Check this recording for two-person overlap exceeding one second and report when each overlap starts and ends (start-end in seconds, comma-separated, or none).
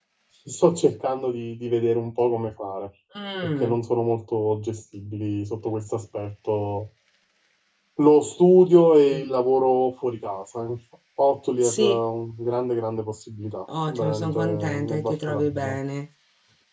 13.9-15.8